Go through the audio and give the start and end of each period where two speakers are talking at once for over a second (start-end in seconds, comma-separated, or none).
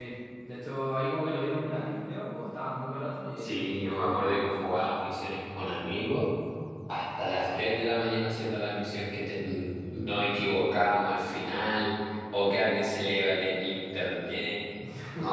3.4-4.9